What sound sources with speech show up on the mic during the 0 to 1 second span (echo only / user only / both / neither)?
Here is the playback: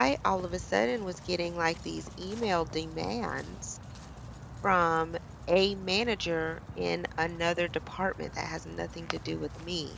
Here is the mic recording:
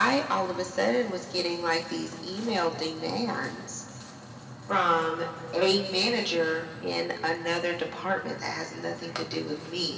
echo only